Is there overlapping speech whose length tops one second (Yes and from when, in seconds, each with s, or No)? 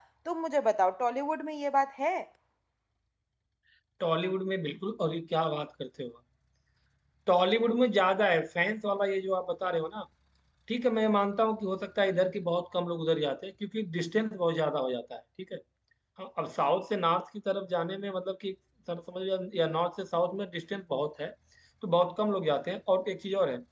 No